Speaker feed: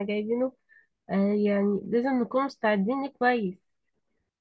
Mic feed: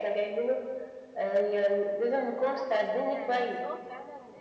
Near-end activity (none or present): present